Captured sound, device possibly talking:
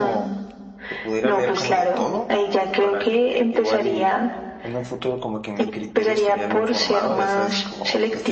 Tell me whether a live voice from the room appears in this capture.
Yes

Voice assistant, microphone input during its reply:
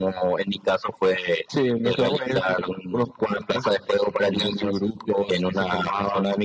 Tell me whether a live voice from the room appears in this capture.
No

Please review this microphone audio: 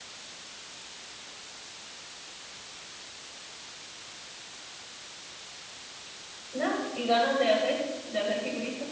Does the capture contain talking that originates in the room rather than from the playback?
Yes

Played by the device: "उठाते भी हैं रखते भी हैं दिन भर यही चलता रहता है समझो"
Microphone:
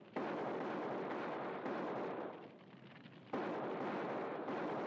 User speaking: No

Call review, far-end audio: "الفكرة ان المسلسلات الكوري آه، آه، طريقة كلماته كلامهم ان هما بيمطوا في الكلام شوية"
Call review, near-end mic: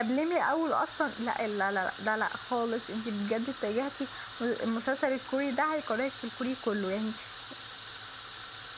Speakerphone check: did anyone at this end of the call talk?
Yes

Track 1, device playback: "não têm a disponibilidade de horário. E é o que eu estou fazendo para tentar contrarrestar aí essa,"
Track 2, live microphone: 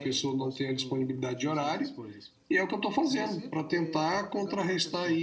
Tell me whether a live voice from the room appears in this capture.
Yes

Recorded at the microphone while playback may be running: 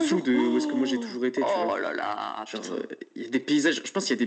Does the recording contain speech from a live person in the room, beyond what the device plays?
No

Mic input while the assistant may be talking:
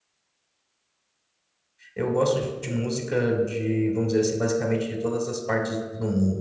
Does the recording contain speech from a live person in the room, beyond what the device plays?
Yes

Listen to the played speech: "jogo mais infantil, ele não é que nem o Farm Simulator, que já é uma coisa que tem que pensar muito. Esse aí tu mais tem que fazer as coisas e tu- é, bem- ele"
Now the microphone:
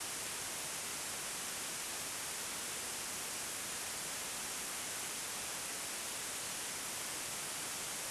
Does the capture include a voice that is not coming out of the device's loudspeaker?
No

